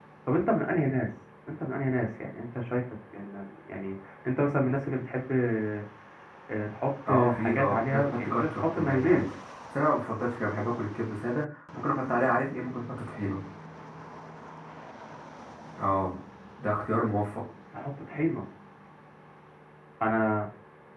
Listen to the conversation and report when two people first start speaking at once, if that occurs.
7.1 s

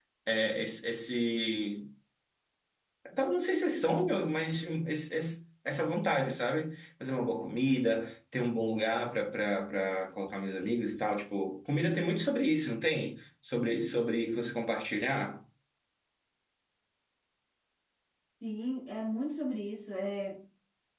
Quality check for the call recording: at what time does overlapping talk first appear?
none

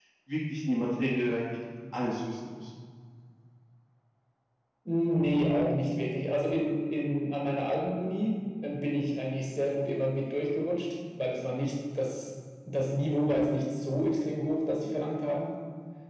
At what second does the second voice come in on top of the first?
none

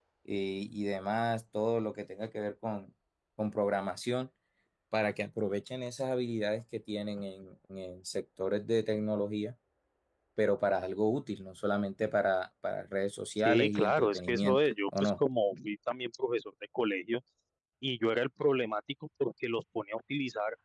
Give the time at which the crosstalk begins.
13.4 s

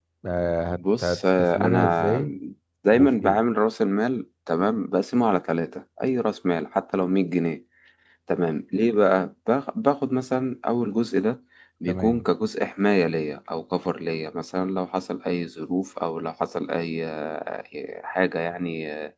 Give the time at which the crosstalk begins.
0.8 s

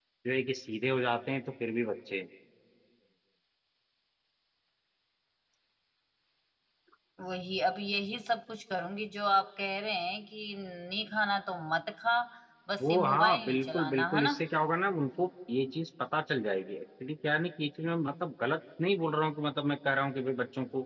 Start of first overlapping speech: 12.8 s

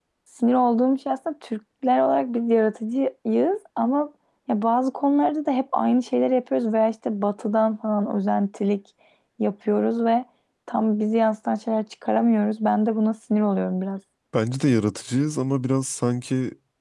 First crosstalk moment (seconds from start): none

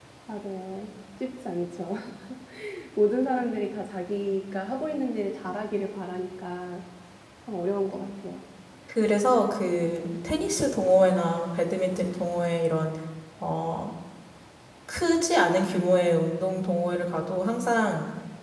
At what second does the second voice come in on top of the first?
none

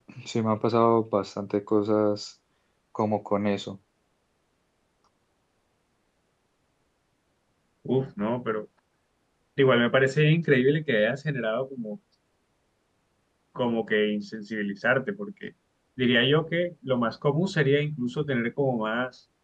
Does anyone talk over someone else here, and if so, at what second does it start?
none

